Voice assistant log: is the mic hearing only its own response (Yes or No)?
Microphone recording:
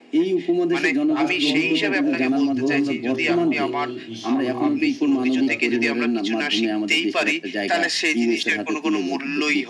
No